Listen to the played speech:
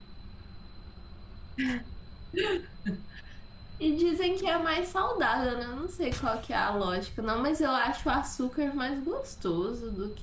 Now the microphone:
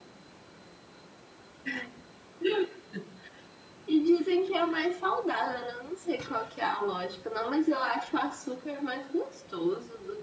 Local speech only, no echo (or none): none